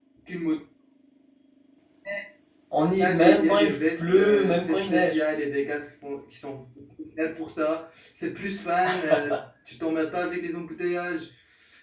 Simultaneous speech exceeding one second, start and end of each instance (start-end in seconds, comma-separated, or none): 3.0-5.2